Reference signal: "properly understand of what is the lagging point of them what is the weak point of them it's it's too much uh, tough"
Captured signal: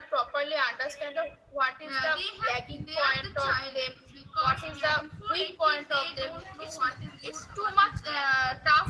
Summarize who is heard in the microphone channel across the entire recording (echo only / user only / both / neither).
both